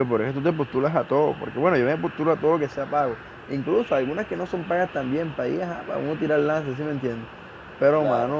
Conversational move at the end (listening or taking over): listening